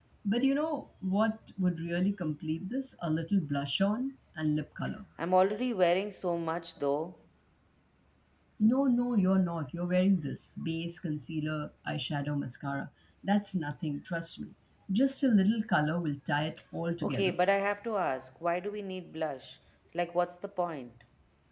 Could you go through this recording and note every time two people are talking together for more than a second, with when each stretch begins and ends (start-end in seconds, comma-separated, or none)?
none